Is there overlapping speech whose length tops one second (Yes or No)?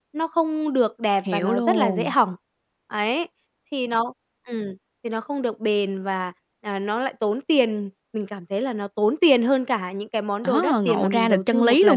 Yes